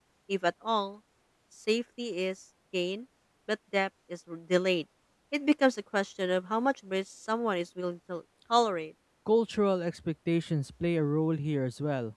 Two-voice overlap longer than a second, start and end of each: none

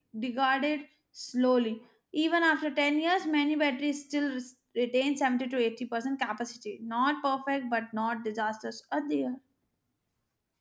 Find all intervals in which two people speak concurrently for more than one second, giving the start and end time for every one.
none

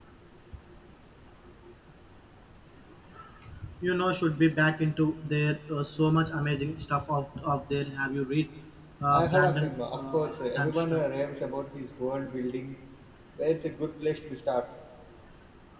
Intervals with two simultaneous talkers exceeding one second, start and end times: 9.1-11.0

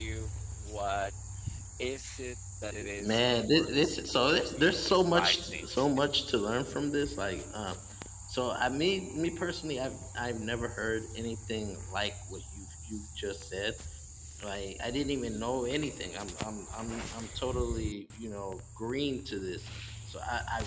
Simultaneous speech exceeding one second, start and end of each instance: 3.0-5.7

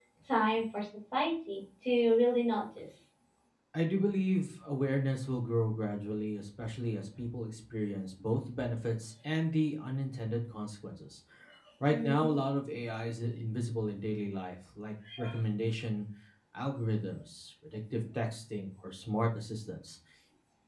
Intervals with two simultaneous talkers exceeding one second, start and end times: none

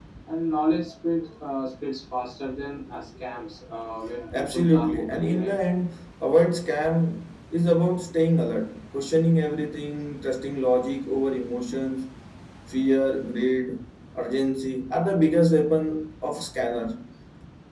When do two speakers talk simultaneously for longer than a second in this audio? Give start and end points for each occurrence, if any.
4.3-5.5

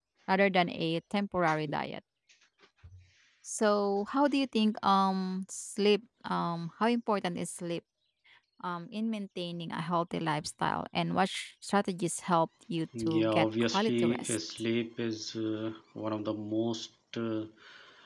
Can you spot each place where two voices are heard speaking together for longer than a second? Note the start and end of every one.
13.0-14.4

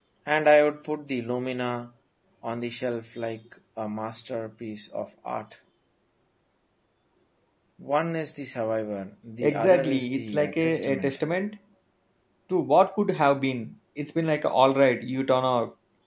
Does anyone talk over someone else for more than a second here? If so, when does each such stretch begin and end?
9.4-11.2

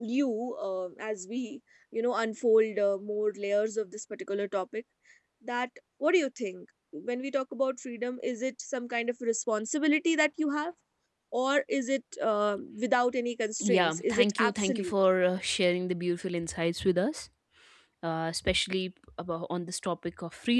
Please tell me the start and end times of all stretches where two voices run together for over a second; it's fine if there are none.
13.6-14.9

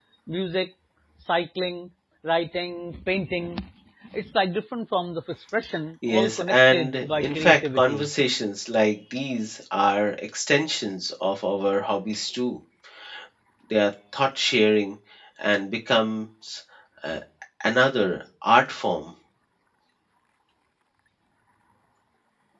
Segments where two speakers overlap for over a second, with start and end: 6.1-8.1

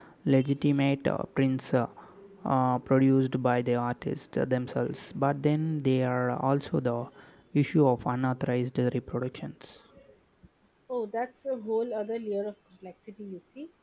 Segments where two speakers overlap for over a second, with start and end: none

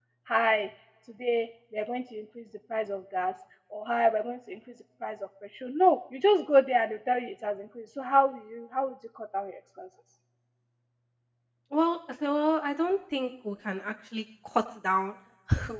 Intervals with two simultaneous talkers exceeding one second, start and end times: none

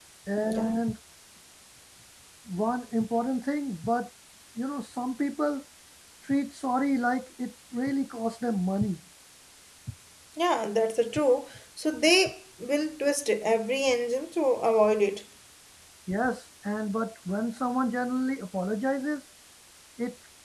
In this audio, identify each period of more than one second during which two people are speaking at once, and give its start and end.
none

